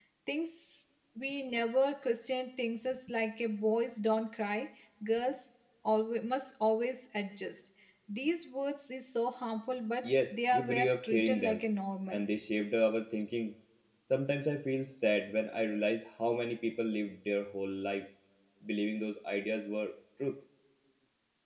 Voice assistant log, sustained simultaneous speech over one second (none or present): present